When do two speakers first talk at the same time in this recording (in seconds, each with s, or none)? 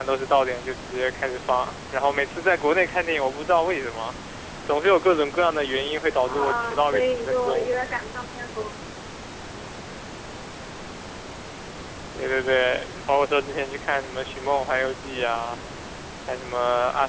6.2 s